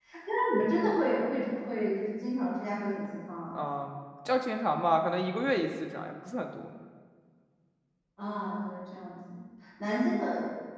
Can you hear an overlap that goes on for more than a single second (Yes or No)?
No